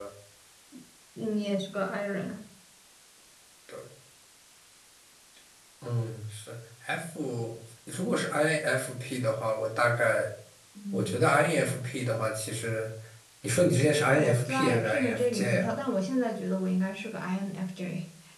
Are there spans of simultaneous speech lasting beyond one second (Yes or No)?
Yes